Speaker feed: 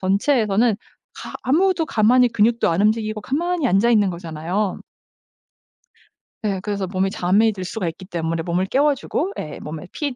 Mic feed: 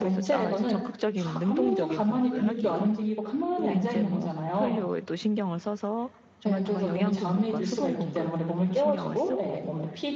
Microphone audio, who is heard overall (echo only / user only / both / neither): both